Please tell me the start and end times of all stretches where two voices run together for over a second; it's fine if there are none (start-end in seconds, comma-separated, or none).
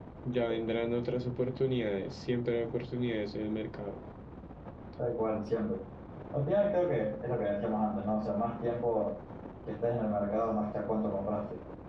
none